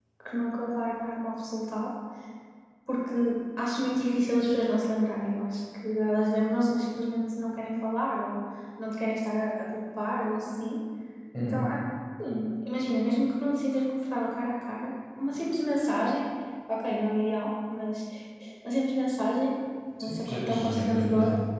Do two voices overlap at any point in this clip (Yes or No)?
Yes